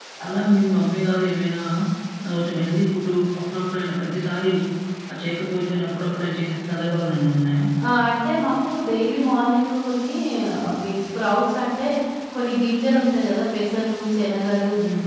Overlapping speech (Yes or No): No